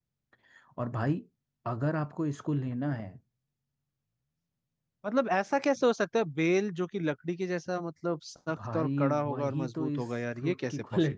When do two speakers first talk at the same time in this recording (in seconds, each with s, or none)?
8.5 s